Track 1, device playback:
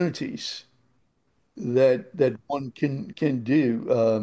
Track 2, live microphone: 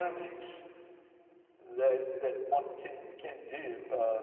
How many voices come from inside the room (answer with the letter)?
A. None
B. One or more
A